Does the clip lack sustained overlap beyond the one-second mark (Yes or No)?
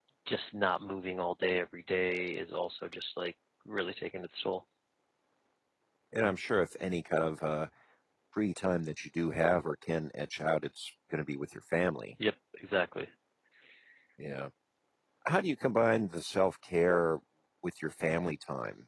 Yes